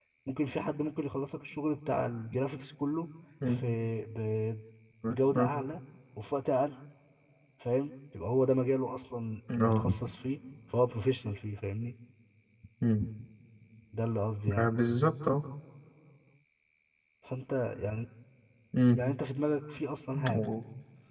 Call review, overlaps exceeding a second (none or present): none